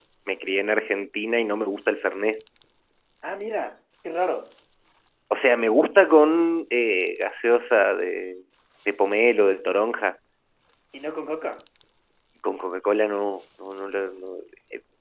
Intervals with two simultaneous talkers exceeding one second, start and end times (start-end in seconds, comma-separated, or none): none